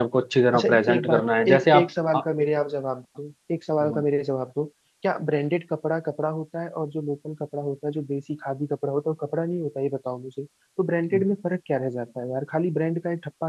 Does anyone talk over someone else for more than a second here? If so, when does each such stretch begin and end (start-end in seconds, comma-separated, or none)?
0.5-2.2